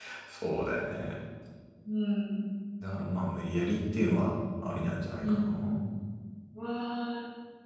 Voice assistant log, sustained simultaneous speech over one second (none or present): none